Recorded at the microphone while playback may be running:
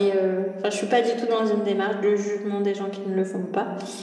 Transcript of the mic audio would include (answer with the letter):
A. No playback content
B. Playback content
B